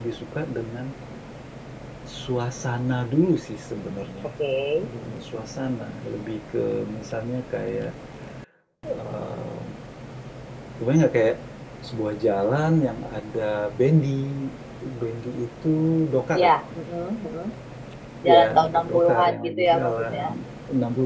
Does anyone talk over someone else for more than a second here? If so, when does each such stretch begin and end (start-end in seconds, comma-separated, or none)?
18.3-20.2